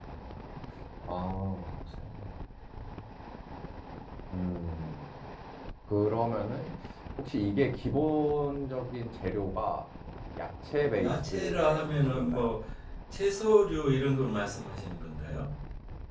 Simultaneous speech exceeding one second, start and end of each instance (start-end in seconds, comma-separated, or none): 11.0-12.5